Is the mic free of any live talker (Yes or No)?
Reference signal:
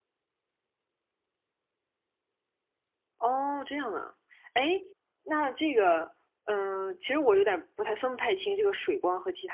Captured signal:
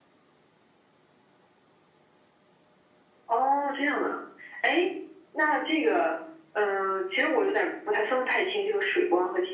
Yes